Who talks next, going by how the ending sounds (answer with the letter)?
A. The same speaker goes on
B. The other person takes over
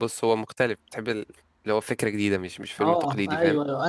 B